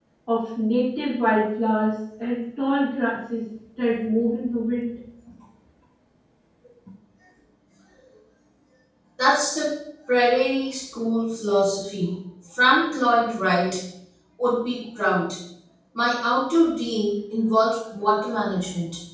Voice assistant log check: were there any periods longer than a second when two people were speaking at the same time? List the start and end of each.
none

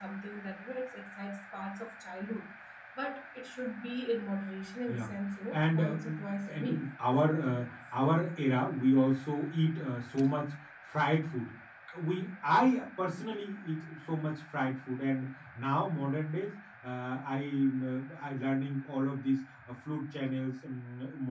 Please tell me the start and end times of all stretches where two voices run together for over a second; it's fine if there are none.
5.5-7.7

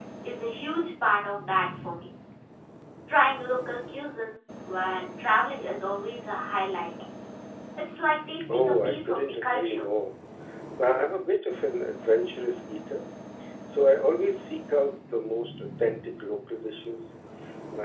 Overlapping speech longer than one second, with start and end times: 8.5-9.9

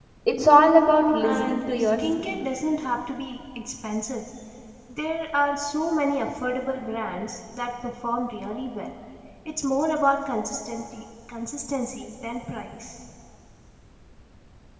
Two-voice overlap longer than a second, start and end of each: 1.2-2.4

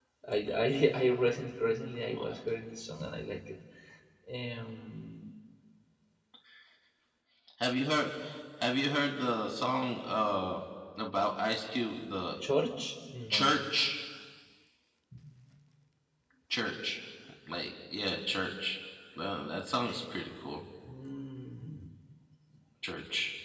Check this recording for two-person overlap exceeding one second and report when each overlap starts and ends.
none

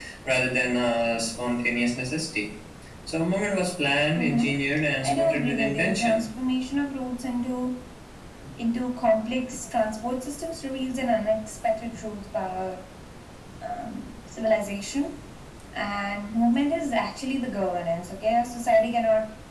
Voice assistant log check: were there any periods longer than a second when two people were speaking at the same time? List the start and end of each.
5.0-6.2

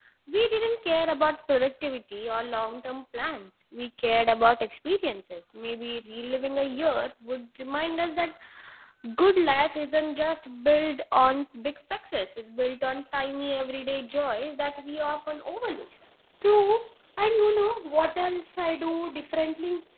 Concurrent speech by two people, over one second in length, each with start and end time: none

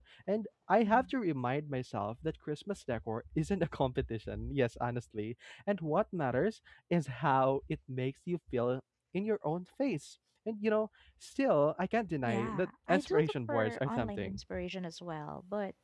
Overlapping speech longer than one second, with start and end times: 12.2-14.4

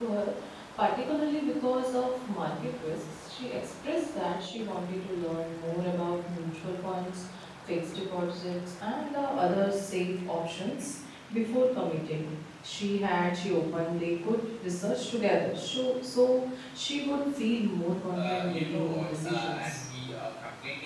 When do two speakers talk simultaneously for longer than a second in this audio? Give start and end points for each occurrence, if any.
18.1-19.7

